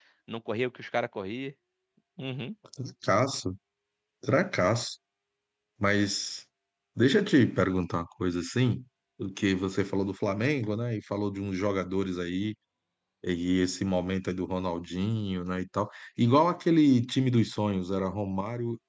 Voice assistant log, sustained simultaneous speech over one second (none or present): none